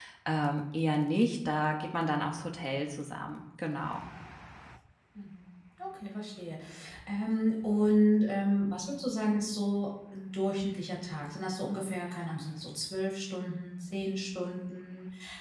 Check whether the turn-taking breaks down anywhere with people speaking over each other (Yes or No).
No